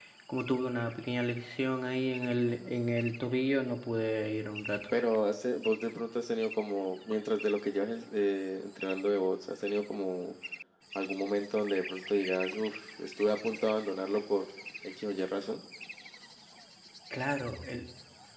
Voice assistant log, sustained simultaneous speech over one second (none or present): none